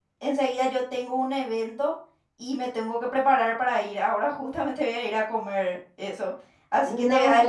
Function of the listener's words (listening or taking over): taking over